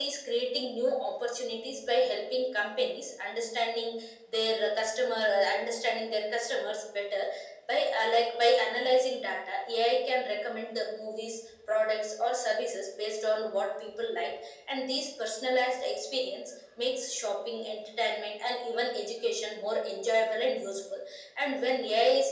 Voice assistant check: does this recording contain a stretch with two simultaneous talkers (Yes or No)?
No